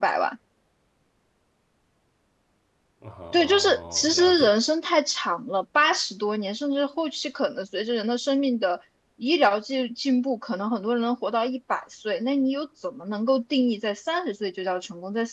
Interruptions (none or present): present